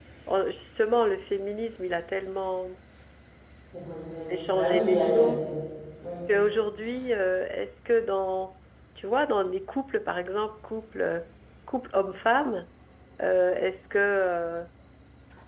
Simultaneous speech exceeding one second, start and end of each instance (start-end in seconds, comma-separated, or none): 4.2-5.5